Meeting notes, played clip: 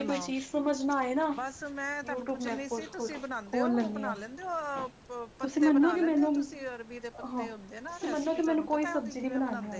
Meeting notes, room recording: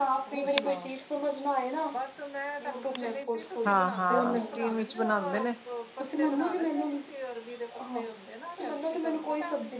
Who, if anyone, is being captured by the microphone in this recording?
both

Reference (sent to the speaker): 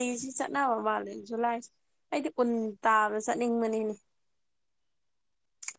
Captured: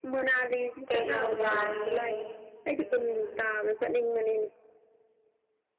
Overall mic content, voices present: both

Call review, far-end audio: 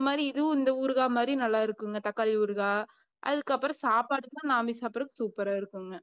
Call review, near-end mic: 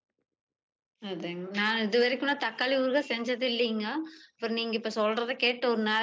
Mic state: user only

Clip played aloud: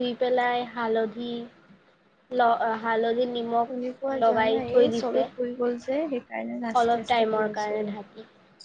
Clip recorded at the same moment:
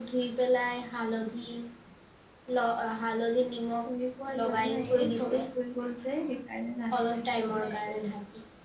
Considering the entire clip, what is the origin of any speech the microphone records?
both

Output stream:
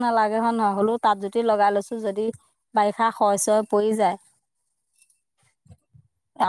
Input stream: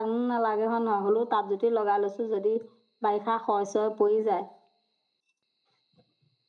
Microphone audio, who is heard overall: echo only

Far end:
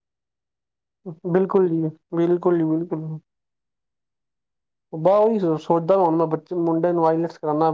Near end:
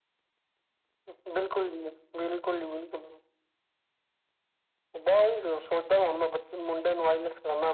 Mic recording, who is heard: echo only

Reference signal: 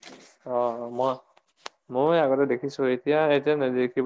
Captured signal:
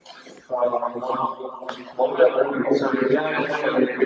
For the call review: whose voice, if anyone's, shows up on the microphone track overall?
both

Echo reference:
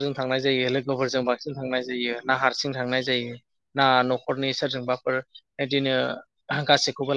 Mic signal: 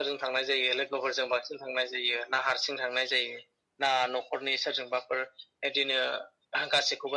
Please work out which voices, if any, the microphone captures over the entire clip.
echo only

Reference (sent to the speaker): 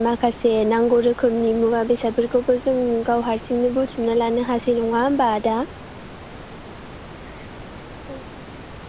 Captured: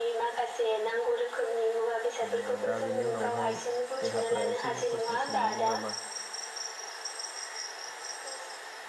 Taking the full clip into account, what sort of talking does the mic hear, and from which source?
both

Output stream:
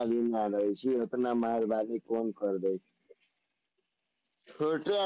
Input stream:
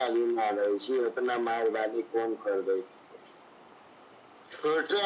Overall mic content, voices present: echo only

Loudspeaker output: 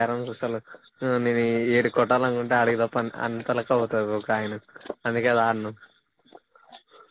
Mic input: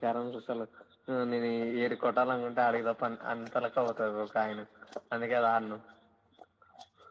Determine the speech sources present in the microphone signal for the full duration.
echo only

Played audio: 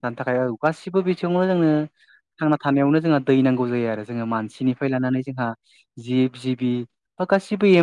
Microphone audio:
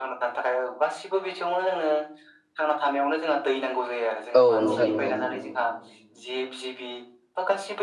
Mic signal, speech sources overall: both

